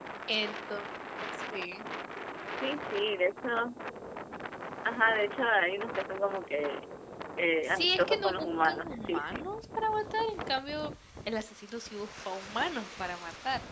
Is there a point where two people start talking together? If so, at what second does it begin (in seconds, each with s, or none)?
7.7 s